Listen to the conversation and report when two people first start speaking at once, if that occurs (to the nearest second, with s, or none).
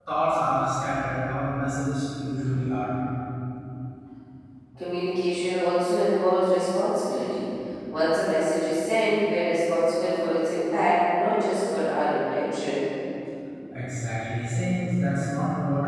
none